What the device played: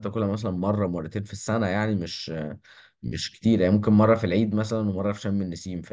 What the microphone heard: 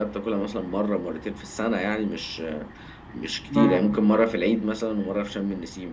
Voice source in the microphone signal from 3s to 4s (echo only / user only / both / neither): both